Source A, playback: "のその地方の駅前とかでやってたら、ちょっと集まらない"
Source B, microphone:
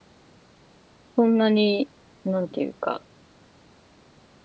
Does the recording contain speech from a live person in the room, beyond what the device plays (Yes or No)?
Yes